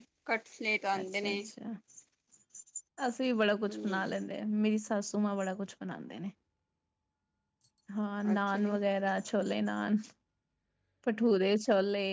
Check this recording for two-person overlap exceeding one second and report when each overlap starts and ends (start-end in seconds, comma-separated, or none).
none